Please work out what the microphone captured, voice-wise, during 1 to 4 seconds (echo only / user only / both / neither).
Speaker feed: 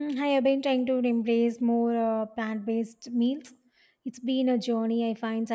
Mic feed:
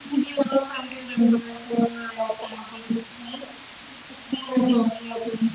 echo only